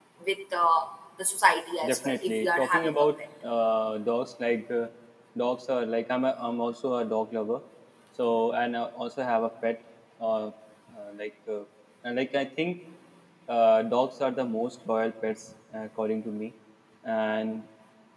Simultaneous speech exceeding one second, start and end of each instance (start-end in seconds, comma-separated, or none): 1.8-3.1